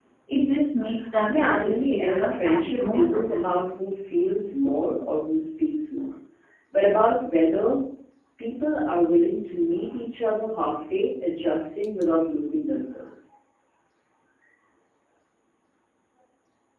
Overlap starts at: 1 s

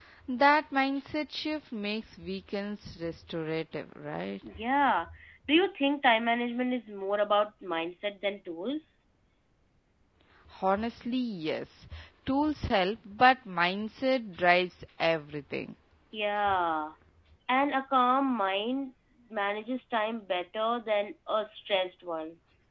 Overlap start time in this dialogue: none

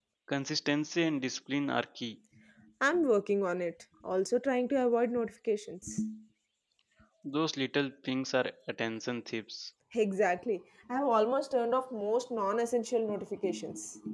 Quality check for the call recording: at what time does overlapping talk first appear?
none

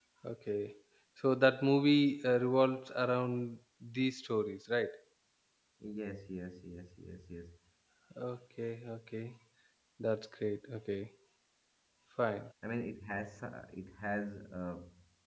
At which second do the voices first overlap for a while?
none

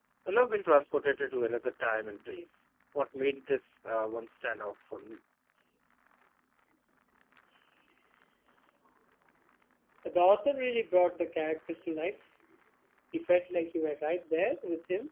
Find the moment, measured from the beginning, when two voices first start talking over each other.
none

